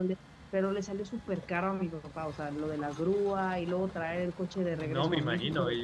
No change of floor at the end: No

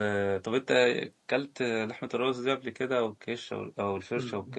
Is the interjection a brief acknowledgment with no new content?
No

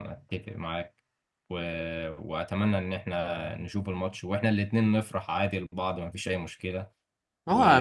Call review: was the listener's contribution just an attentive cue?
No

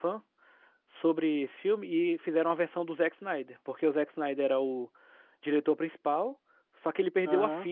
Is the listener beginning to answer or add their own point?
No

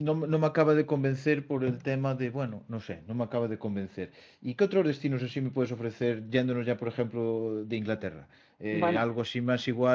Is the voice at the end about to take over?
No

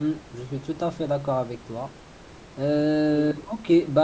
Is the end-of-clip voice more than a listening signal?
No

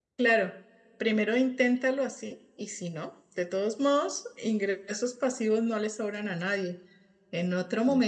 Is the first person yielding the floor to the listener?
No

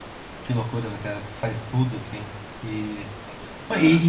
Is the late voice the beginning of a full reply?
No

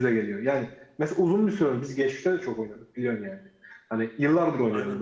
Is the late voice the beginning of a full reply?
No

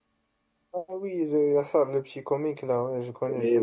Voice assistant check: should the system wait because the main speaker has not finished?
No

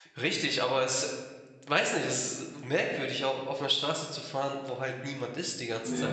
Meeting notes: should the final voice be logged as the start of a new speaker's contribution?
Yes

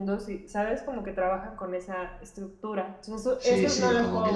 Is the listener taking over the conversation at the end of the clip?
Yes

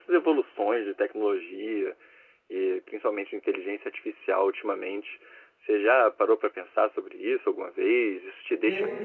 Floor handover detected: Yes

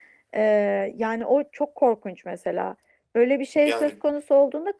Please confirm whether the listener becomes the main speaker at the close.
No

